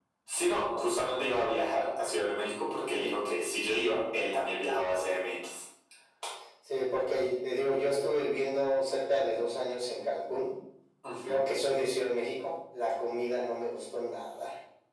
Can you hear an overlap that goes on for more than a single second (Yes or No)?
No